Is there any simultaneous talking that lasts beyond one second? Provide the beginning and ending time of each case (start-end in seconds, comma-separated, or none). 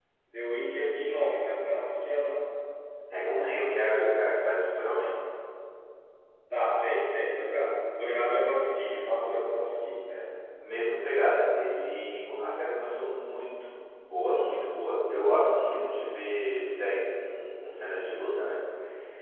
none